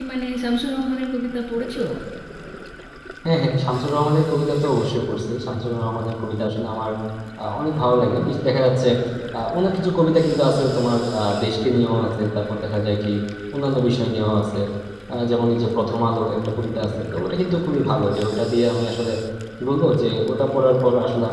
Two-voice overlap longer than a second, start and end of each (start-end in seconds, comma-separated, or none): none